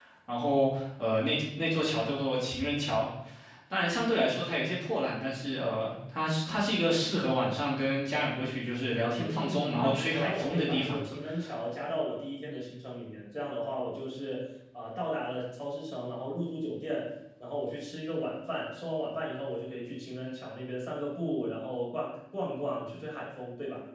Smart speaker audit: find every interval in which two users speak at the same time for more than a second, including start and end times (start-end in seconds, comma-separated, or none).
9.2-11.1